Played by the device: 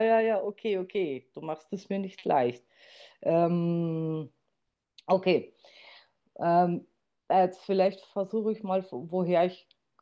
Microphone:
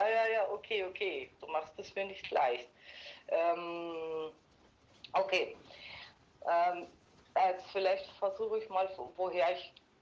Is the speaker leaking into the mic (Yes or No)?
Yes